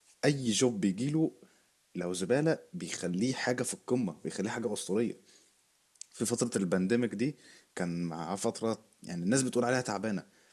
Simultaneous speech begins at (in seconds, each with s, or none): none